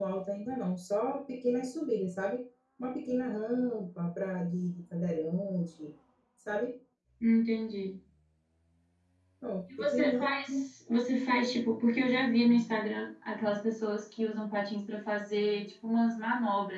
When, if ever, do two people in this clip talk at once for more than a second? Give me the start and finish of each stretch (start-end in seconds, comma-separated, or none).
none